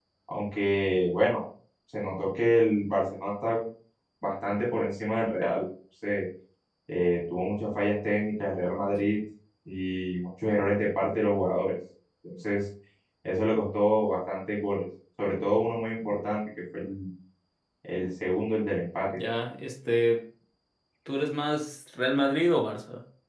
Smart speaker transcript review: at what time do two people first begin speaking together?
none

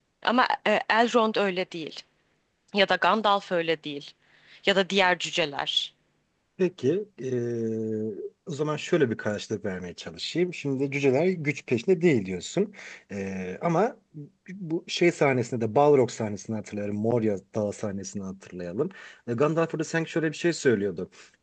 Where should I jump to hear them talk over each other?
none

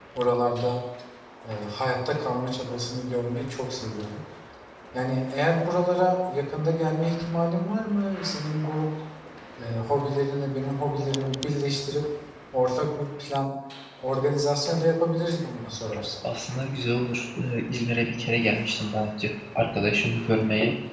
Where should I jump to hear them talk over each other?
none

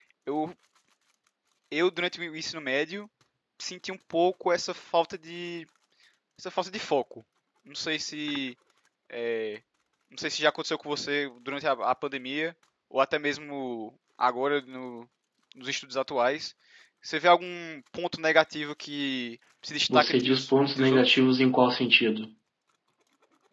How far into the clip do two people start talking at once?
19.9 s

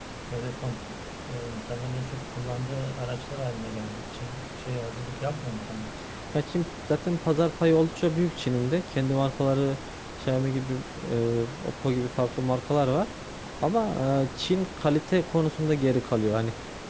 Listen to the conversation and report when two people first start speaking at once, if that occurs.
none

